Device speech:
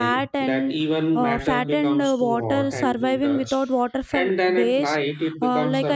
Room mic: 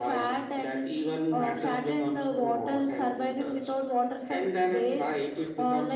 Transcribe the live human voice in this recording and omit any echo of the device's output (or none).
none